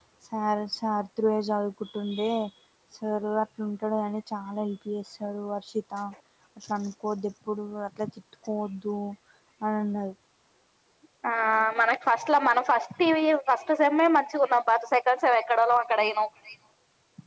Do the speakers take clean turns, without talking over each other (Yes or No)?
Yes